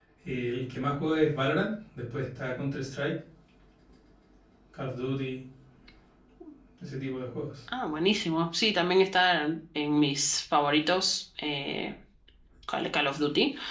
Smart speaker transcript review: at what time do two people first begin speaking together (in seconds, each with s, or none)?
none